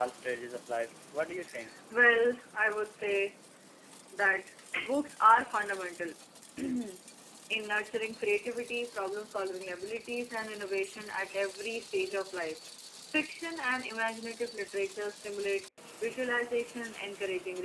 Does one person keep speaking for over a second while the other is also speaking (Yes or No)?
No